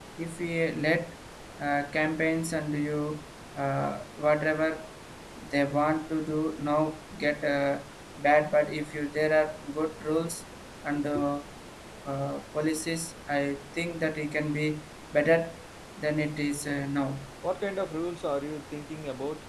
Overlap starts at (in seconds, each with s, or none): none